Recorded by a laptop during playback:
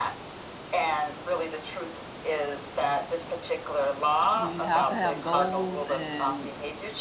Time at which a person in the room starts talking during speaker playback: 4.3 s

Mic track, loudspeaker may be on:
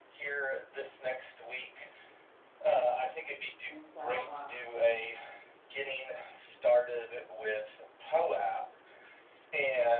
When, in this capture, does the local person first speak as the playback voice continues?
3.6 s

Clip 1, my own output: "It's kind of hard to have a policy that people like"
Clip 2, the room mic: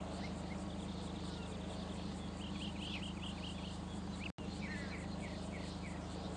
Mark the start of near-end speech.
none

